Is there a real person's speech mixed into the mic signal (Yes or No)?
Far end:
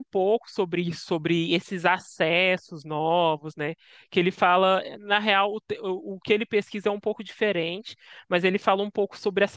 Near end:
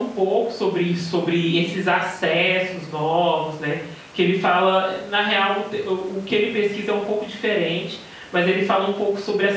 No